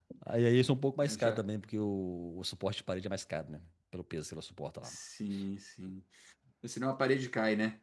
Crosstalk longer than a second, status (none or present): none